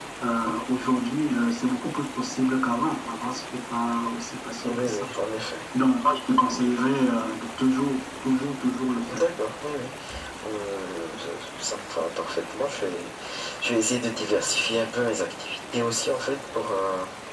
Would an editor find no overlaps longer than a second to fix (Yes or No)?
Yes